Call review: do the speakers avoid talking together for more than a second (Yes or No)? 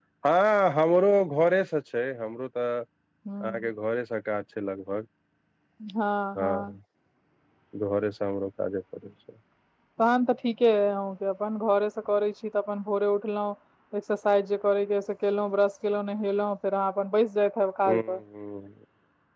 Yes